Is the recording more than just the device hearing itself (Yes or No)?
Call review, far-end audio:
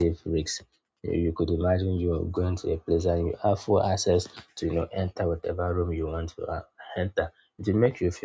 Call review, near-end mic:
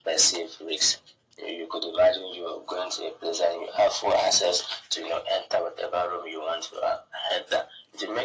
No